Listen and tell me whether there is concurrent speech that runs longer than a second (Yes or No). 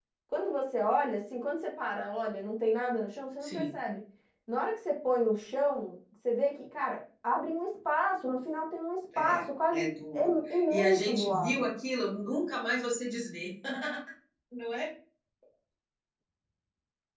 Yes